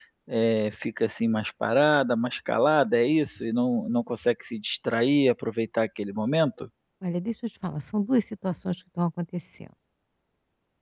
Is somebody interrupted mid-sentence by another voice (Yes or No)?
No